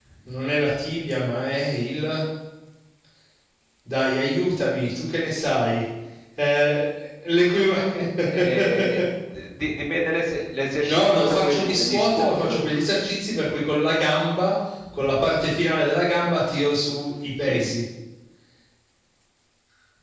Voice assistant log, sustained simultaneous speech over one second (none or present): present